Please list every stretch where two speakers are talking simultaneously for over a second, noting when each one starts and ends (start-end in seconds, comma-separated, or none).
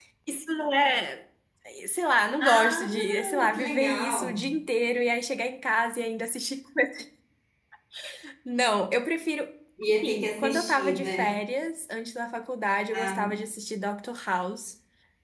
2.4-4.5, 9.9-11.2